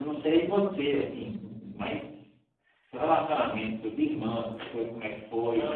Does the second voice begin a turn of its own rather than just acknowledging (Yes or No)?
Yes